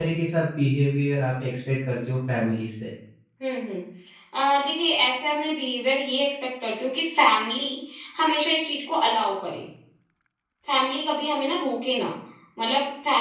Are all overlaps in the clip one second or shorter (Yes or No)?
Yes